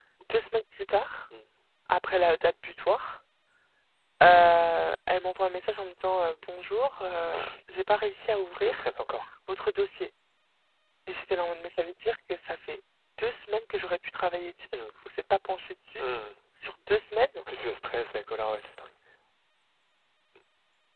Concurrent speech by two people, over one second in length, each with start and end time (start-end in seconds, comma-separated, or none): none